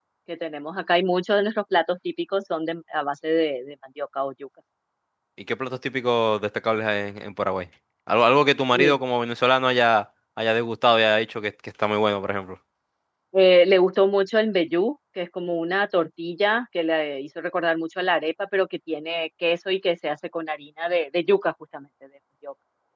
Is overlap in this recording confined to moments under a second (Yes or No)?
Yes